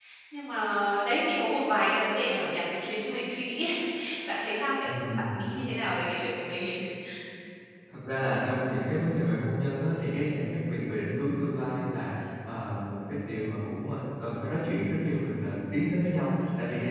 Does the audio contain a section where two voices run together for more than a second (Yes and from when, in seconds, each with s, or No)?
No